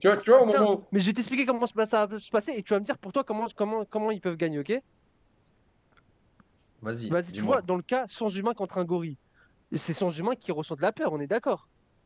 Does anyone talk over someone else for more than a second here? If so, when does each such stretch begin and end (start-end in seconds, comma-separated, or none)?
none